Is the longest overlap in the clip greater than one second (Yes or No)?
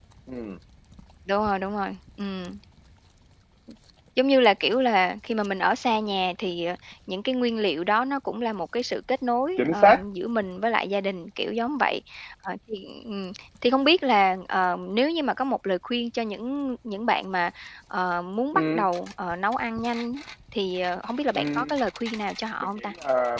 No